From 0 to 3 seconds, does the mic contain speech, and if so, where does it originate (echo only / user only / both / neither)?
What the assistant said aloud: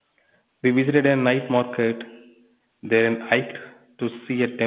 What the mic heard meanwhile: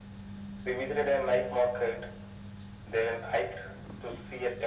echo only